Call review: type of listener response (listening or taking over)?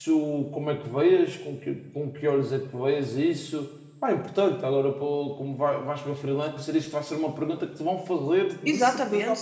taking over